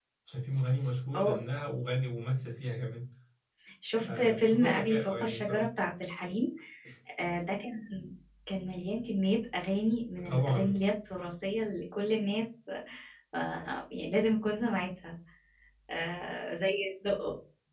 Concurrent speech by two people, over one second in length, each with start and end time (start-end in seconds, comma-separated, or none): 4.0-5.7